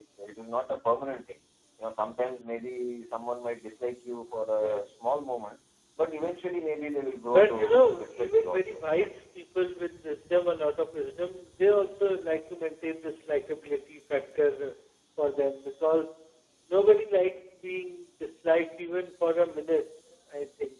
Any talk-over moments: Yes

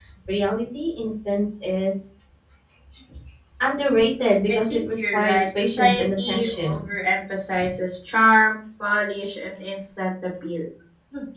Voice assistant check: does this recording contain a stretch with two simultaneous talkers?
Yes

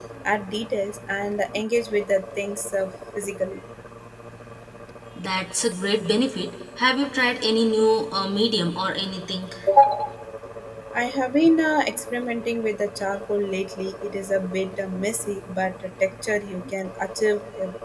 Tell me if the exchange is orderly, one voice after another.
Yes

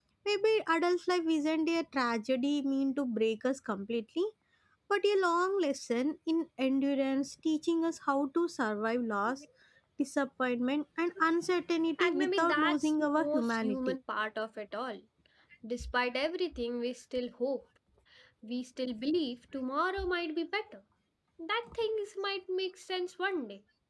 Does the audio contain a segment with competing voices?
Yes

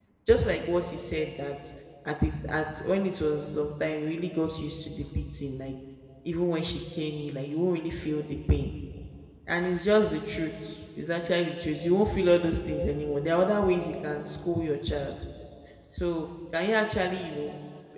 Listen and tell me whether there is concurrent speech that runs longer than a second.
No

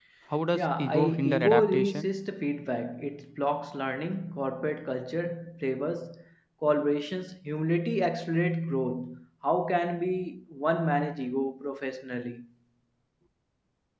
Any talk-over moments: Yes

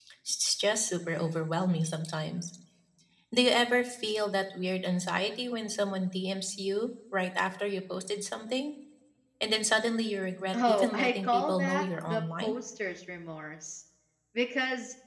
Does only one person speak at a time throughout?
No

